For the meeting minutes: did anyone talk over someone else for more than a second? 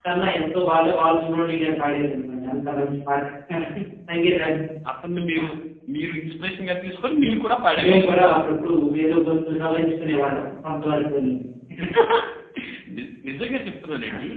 No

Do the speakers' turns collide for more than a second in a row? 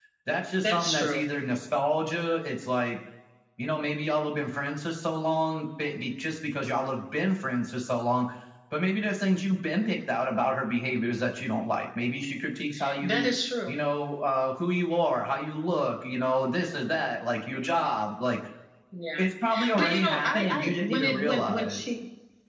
Yes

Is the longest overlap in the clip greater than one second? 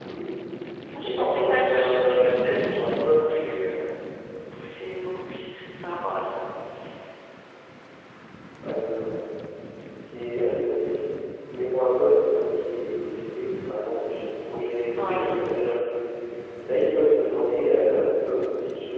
Yes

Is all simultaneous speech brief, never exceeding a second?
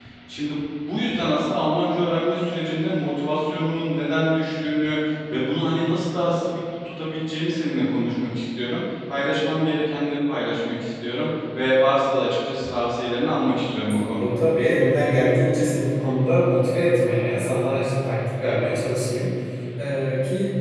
Yes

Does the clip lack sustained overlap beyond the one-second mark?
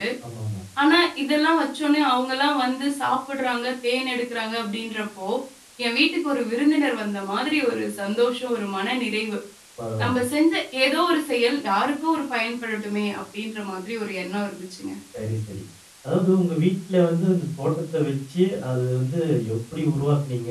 Yes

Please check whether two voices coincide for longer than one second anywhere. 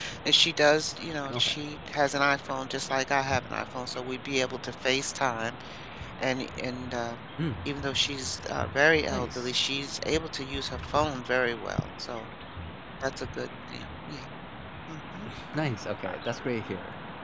No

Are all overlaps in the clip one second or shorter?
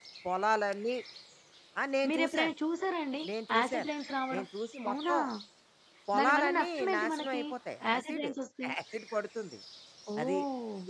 No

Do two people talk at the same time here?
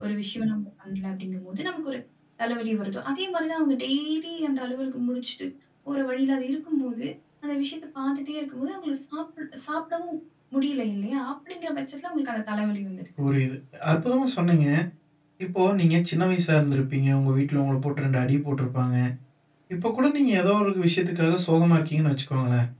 No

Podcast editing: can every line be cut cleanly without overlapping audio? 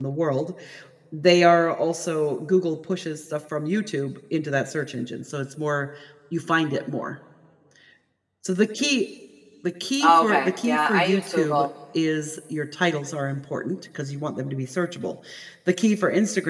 No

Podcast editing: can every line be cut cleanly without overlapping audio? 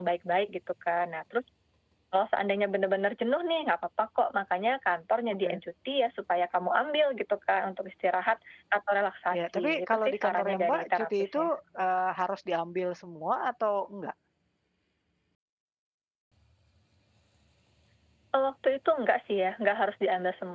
No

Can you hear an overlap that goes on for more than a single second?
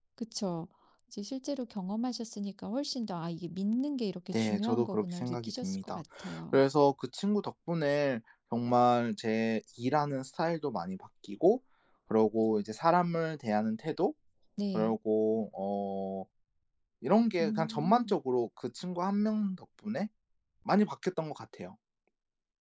Yes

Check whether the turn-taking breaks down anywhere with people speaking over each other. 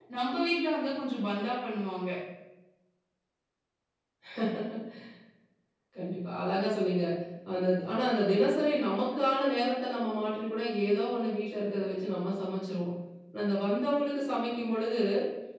No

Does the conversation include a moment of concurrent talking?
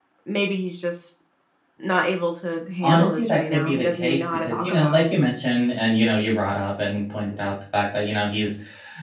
Yes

